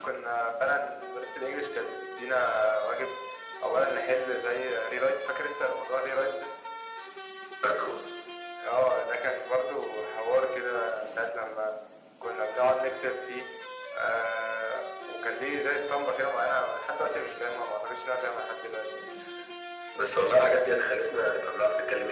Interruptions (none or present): none